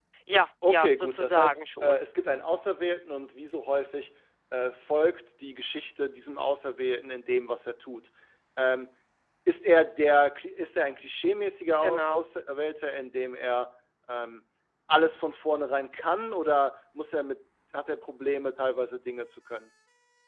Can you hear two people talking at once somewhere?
Yes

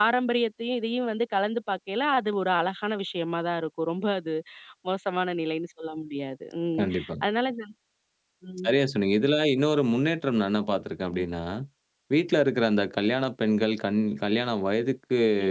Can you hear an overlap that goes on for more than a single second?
No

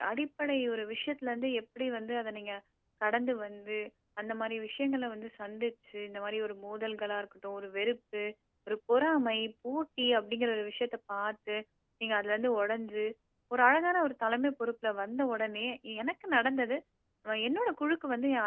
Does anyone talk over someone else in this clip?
No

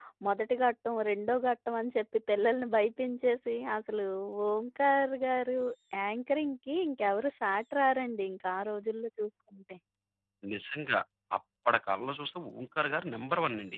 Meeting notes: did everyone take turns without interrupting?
Yes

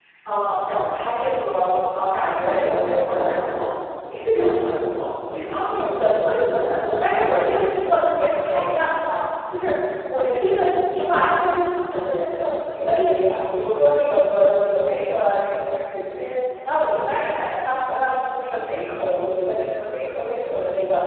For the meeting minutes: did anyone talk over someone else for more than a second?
No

